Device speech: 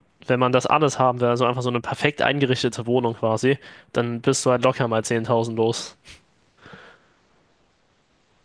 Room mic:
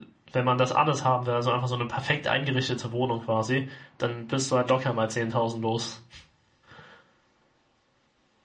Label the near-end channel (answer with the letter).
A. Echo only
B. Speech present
A